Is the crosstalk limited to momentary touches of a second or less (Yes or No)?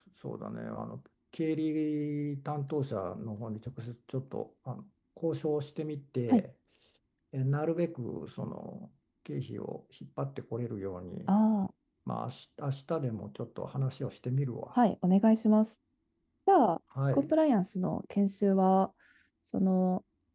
Yes